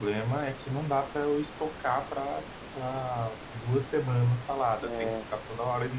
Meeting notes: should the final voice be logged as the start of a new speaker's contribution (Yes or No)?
No